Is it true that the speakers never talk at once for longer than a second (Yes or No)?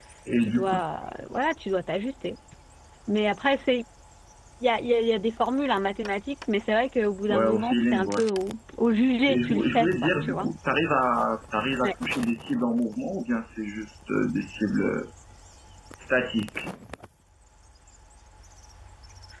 No